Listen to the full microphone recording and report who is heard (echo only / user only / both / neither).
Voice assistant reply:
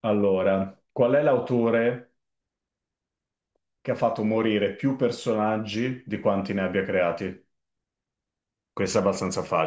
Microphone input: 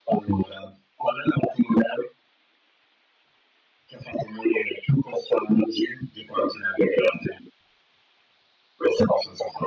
echo only